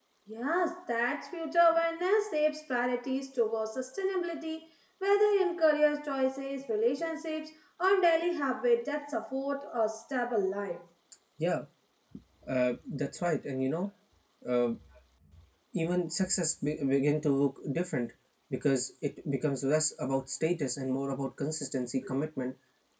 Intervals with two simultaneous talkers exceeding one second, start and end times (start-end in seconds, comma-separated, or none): none